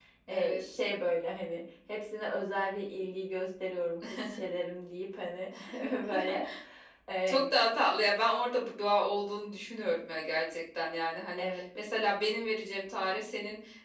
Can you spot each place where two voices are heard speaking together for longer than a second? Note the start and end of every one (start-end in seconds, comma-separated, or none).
none